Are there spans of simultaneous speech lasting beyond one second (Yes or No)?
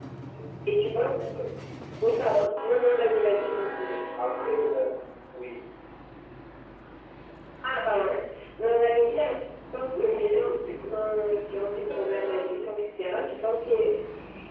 Yes